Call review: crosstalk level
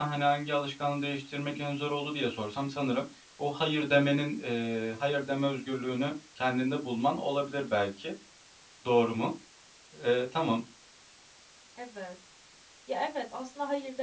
none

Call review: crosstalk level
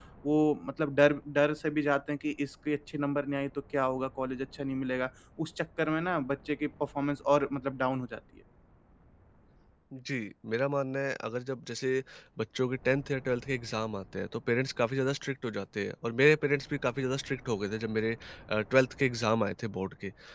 none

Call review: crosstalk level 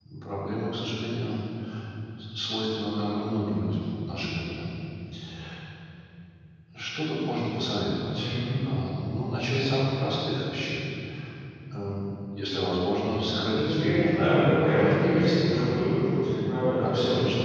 present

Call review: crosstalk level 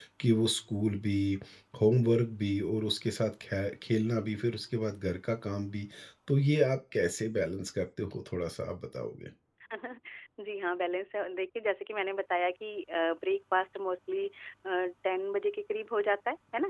none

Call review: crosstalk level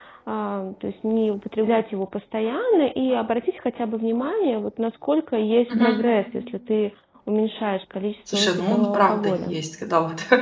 present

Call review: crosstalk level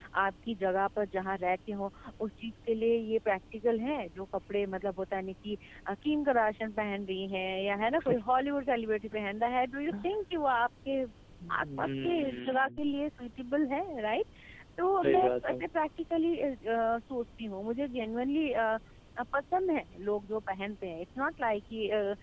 present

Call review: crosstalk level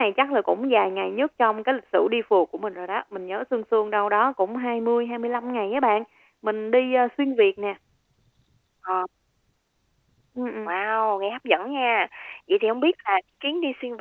none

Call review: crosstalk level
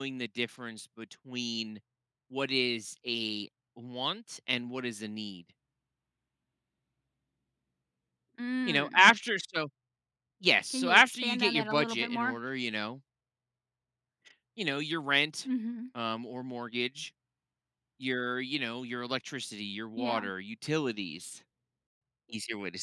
present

